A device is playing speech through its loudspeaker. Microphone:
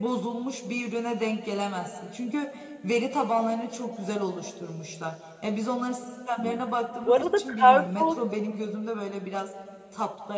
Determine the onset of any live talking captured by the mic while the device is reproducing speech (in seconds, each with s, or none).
7.0 s